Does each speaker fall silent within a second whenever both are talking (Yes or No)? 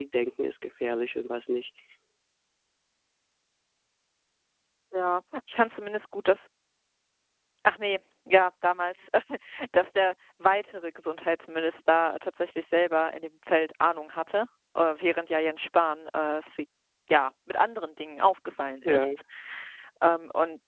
Yes